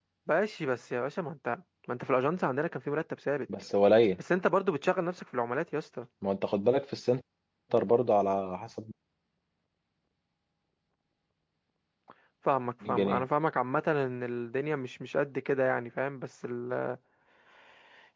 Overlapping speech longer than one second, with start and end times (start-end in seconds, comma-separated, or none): none